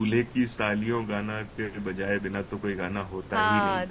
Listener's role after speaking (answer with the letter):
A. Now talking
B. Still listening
A